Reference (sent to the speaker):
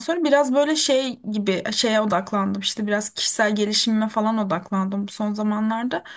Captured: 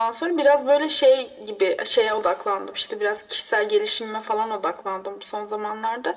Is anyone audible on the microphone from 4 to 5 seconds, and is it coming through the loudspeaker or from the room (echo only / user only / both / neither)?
echo only